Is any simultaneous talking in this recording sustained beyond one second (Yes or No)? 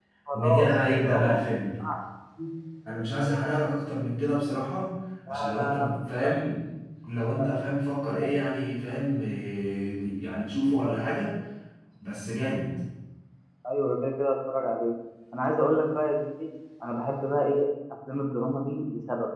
Yes